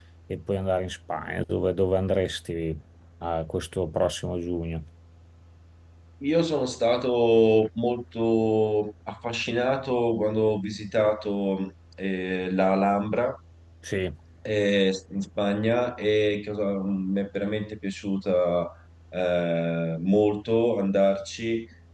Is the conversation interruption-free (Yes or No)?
Yes